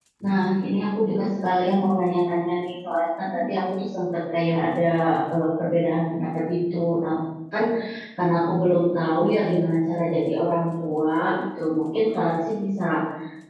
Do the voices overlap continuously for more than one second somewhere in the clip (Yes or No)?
No